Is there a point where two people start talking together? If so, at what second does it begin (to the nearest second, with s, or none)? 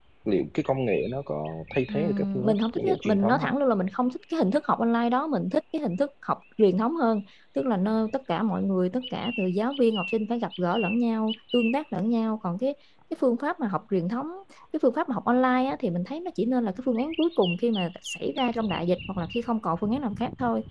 2 s